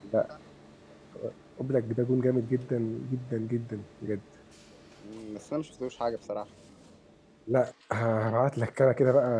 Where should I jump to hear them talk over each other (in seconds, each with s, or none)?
none